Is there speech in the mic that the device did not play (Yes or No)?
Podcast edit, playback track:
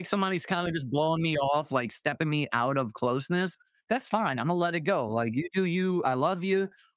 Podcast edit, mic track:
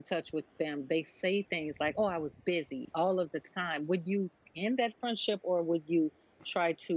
Yes